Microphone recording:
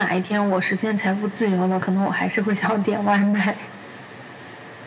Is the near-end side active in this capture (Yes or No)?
No